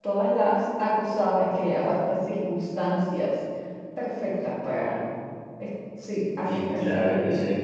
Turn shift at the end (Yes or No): Yes